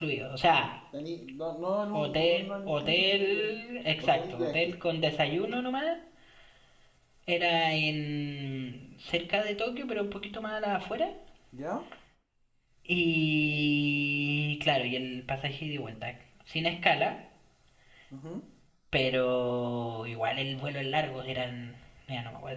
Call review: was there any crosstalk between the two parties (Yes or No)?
Yes